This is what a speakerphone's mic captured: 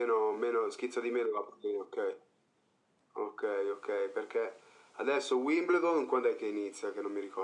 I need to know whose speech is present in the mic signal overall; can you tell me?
echo only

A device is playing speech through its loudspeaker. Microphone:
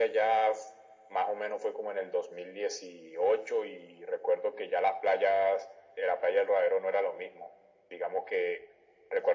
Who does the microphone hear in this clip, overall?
echo only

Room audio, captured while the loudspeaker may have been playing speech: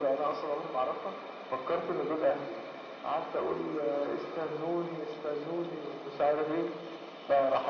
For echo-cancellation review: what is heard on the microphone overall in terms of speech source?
echo only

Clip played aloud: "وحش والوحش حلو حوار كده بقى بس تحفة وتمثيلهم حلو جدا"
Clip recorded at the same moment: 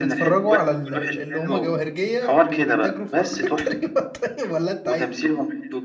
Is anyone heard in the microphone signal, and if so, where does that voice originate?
both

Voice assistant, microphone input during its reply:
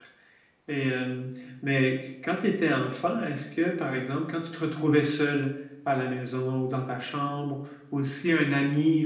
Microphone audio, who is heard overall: user only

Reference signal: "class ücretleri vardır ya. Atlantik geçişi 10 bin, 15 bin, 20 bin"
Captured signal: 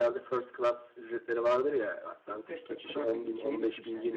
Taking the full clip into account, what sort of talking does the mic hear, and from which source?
both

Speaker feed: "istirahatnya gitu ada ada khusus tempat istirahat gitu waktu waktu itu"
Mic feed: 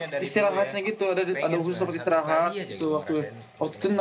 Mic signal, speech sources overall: both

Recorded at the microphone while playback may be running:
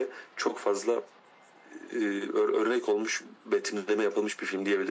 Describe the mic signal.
echo only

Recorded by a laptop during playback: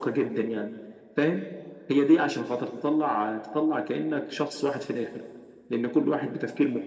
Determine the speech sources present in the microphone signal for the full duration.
echo only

